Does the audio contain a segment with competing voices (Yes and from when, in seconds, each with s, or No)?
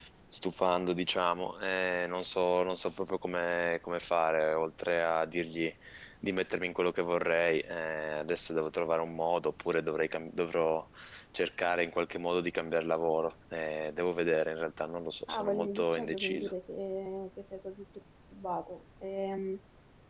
Yes, from 15.3 s